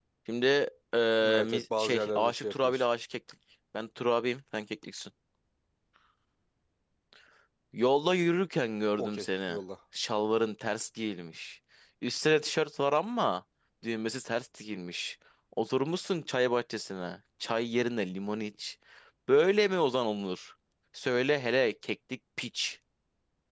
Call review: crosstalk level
present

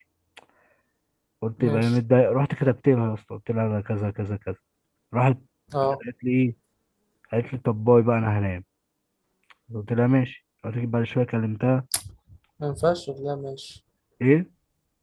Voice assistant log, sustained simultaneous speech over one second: none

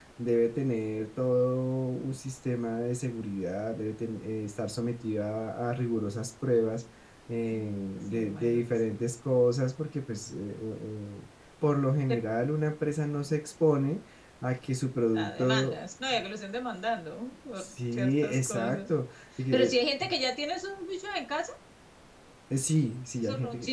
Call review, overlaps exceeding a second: present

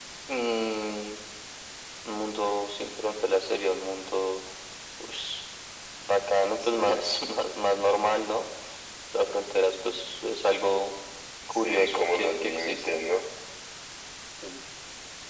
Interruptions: present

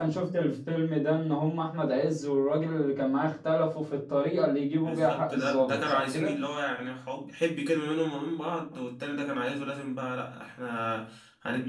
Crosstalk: present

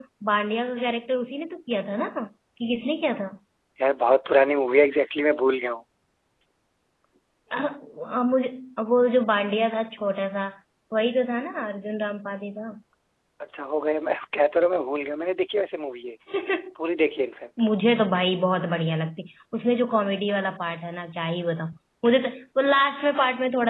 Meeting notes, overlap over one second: none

